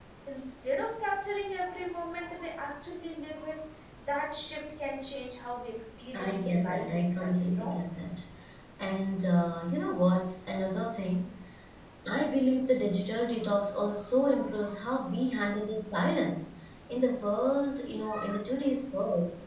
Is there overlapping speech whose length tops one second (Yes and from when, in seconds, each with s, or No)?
Yes, from 6.3 s